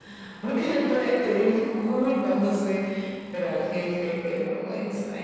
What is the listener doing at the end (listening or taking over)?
taking over